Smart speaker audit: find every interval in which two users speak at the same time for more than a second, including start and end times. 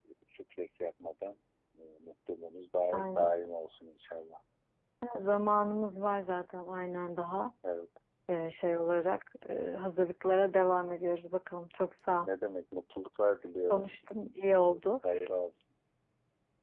none

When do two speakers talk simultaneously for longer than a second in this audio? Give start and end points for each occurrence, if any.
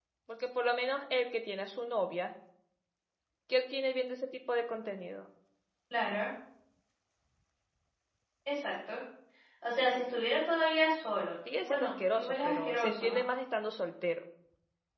11.6-13.2

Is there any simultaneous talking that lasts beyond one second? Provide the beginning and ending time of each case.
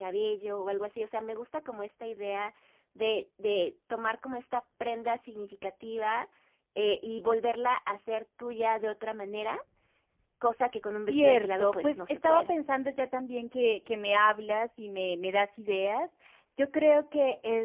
11.1-12.5

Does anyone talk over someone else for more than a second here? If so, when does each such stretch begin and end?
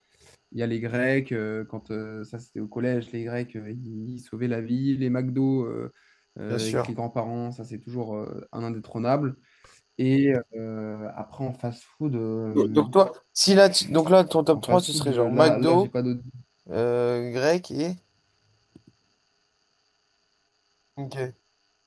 14.5-15.9

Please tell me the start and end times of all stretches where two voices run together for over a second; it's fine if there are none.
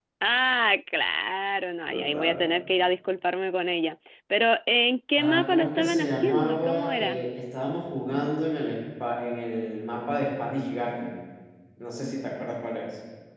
5.2-7.2

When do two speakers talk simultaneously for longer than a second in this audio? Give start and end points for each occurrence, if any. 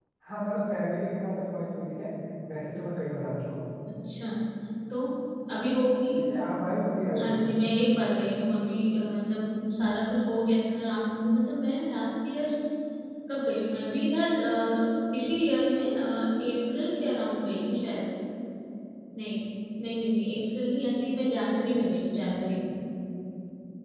none

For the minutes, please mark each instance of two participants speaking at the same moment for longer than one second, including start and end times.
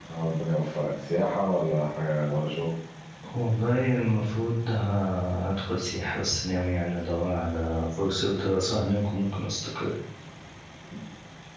none

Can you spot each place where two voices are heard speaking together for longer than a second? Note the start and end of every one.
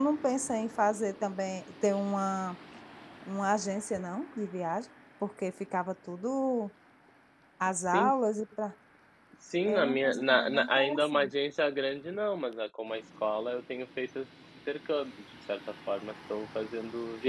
9.7-11.3

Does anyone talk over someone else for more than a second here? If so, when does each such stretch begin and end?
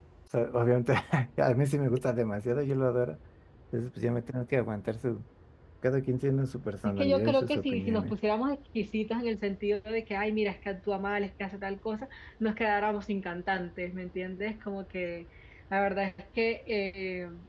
6.8-8.1

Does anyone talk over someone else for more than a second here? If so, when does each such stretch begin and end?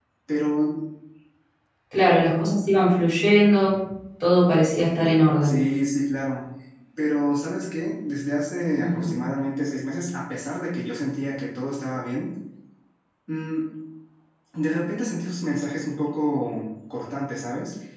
none

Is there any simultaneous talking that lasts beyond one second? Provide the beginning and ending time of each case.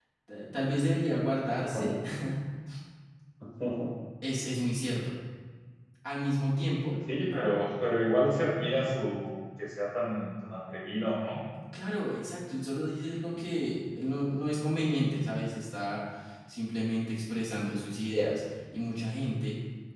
none

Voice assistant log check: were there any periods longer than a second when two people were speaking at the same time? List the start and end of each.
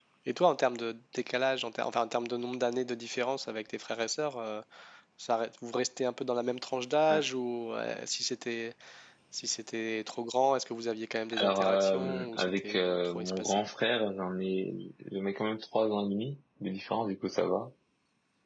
11.3-13.6

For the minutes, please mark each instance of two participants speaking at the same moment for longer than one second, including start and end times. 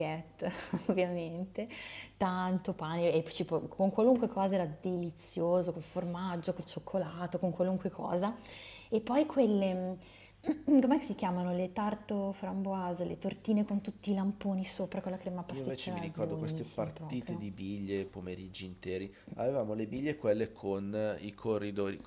15.5-17.4

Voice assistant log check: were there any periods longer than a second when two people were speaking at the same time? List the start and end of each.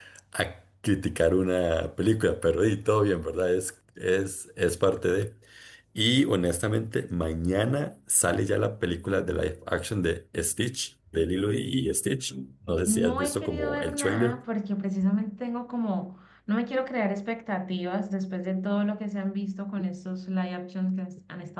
12.9-14.4

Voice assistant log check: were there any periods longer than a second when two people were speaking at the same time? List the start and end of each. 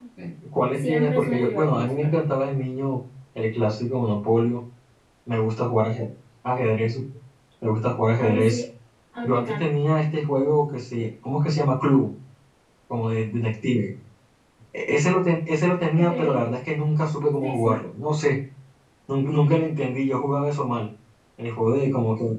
0.7-2.2

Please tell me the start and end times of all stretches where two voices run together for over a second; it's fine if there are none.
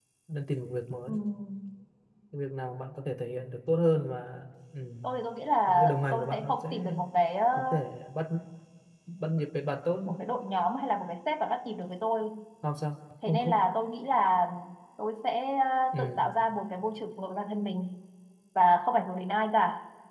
5.7-6.9

